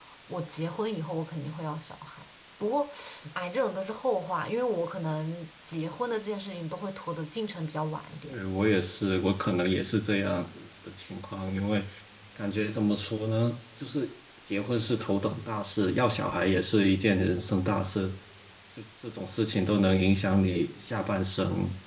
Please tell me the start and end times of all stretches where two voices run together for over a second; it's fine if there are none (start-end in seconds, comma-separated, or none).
none